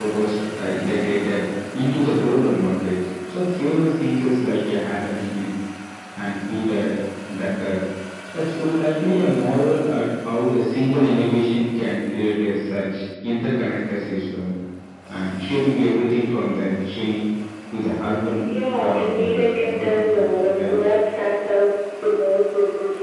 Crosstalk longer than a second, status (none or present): present